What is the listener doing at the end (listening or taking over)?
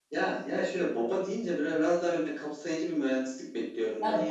taking over